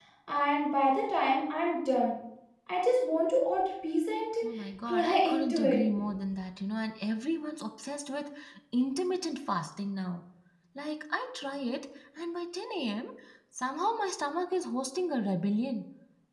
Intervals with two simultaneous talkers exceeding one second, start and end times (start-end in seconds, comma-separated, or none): 4.6-5.8